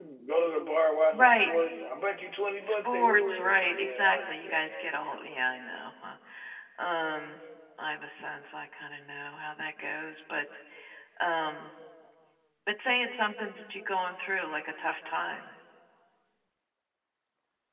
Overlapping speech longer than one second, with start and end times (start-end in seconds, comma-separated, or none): 2.6-4.9